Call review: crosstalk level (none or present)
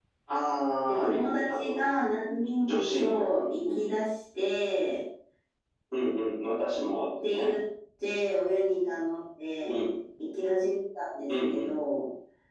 present